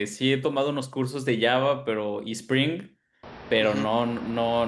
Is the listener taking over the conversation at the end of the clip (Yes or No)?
No